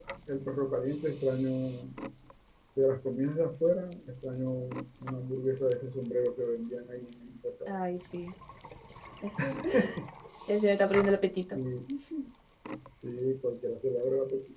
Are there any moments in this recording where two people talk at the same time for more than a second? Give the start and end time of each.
none

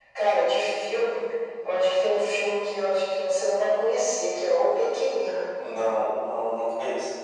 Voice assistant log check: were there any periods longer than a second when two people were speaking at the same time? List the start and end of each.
none

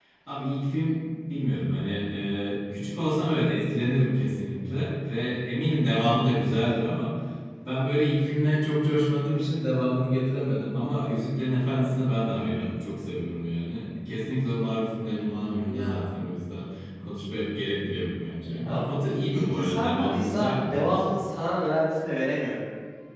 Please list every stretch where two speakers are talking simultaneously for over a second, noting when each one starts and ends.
19.3-21.0

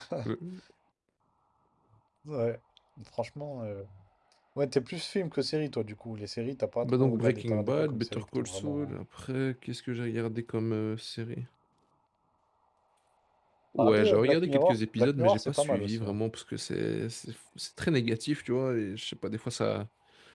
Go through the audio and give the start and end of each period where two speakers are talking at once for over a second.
6.8-9.0, 13.8-16.2

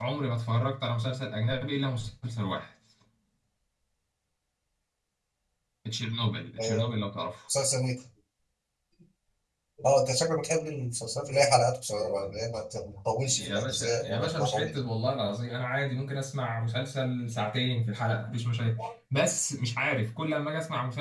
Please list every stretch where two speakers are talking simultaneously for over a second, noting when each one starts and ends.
13.2-14.7

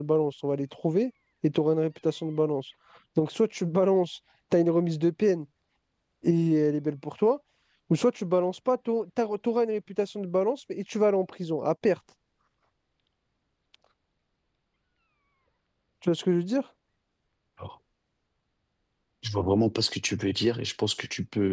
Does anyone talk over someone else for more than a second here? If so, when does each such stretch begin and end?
none

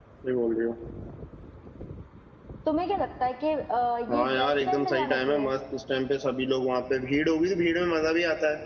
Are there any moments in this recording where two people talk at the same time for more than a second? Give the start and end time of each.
4.1-5.5

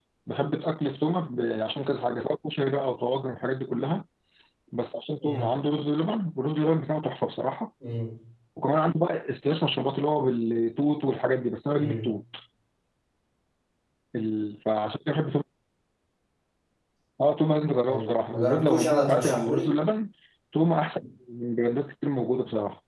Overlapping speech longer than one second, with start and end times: 17.9-19.7

